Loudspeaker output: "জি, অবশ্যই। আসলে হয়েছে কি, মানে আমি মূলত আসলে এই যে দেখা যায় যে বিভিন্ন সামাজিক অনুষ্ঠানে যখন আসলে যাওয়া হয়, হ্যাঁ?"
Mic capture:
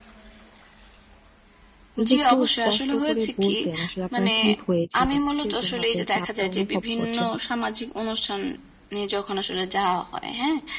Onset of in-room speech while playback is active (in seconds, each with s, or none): 2.0 s